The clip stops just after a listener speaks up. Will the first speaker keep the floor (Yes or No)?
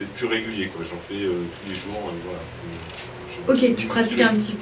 No